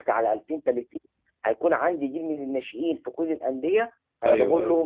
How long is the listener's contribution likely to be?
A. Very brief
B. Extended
A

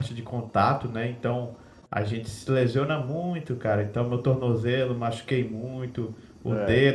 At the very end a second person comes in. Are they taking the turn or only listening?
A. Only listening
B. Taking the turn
A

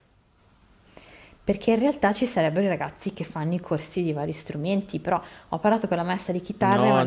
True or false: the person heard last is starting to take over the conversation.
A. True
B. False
A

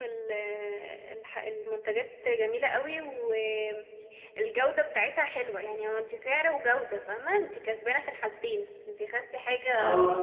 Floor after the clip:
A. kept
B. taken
A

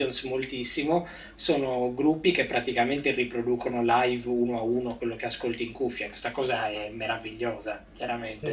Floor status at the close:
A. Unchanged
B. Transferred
B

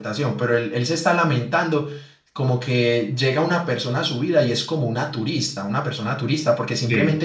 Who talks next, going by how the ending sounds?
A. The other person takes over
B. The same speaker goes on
B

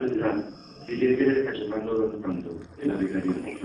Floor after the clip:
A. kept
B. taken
B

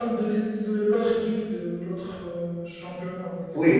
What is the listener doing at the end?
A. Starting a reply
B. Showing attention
A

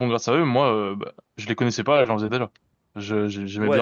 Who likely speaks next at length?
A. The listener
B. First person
A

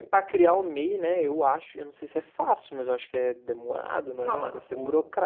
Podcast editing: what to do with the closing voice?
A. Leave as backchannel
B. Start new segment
B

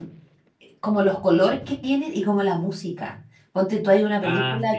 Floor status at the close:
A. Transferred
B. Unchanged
B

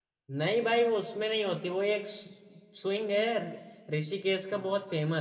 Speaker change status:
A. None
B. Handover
A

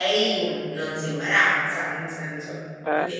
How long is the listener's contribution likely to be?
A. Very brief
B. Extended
A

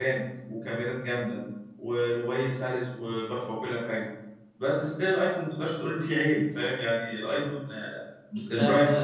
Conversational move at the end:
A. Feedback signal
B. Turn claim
B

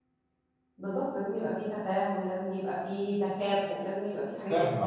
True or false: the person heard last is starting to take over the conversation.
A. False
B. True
B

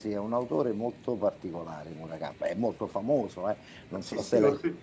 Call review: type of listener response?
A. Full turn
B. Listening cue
A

